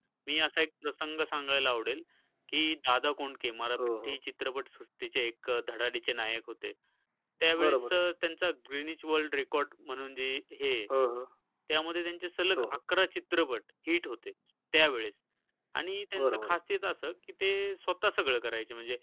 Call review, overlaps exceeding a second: none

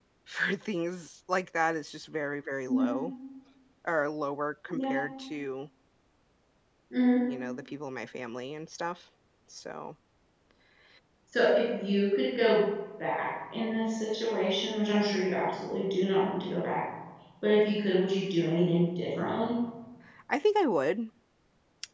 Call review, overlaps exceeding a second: none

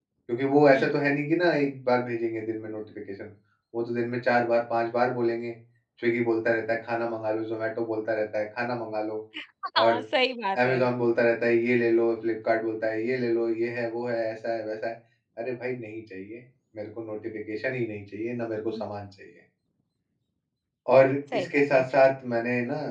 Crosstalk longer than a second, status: none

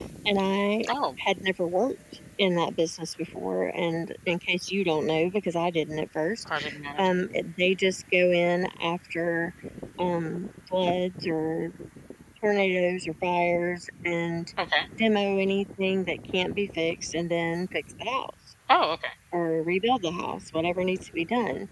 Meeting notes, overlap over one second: none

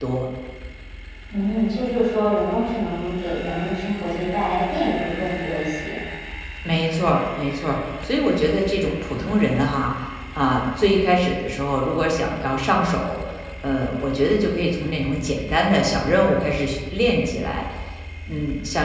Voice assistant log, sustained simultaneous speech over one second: none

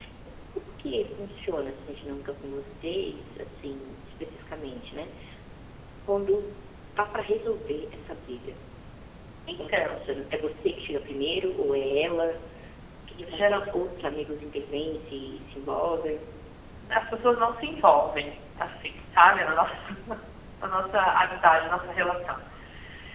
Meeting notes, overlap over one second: none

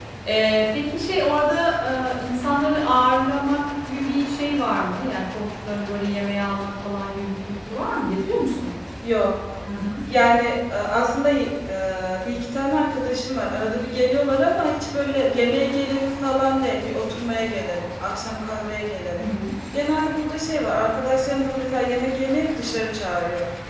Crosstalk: none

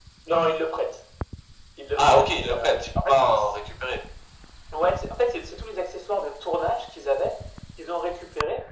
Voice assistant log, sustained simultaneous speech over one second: present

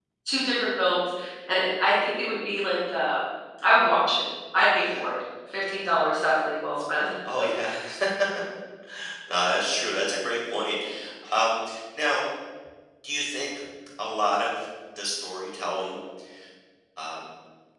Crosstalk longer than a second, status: none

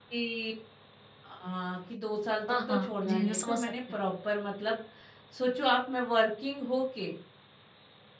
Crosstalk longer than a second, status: present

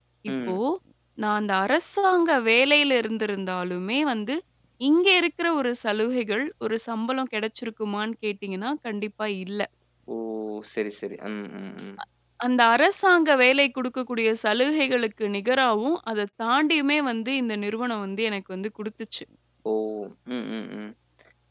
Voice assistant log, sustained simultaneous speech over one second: none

